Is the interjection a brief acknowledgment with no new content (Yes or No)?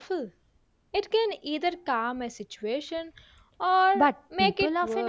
No